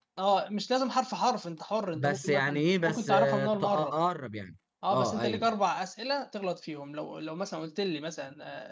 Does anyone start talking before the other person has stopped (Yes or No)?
Yes